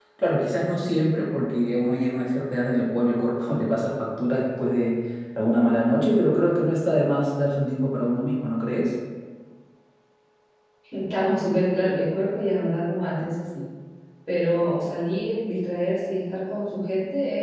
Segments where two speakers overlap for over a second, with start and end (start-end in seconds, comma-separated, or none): none